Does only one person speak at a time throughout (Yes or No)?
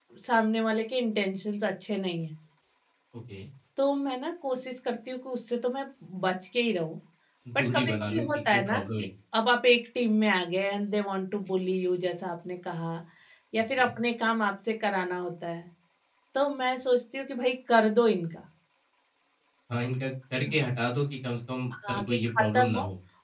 No